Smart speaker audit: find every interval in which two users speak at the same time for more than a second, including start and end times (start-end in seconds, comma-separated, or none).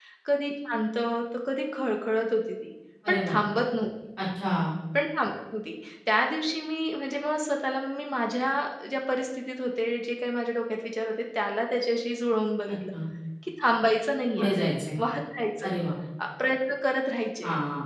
none